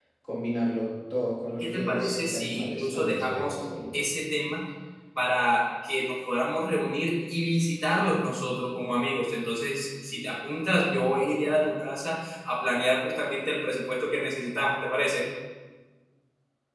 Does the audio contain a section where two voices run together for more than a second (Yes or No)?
Yes